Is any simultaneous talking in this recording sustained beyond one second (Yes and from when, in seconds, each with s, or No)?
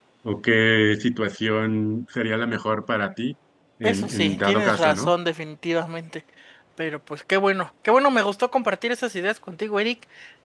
Yes, from 3.8 s